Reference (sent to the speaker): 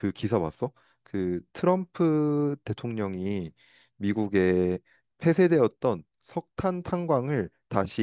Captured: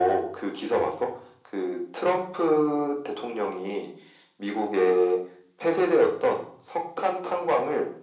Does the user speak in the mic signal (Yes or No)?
No